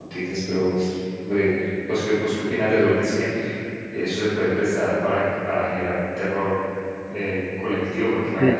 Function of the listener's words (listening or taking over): listening